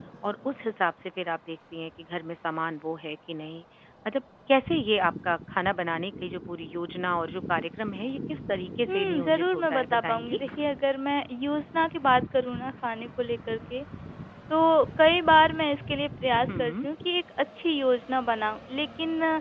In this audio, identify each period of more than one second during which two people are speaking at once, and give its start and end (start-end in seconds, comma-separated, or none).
8.9-10.4